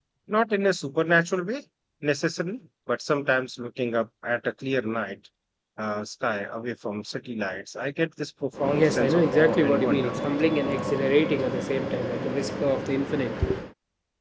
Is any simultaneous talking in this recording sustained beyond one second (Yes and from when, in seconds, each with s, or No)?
Yes, from 8.5 s